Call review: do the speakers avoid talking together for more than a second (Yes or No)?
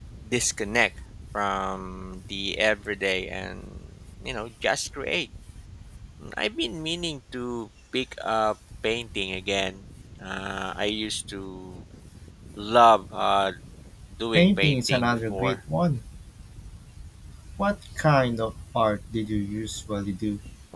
No